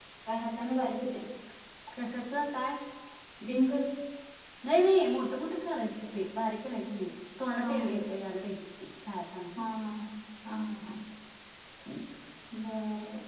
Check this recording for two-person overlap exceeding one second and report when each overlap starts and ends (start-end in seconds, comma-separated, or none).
none